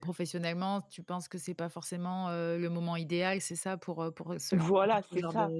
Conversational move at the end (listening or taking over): taking over